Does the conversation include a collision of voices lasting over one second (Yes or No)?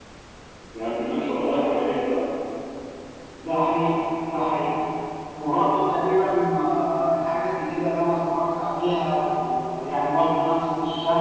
No